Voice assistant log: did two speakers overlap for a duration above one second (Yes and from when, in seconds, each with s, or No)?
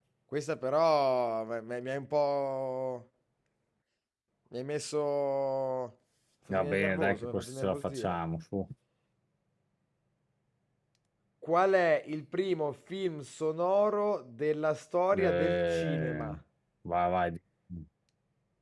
Yes, from 6.5 s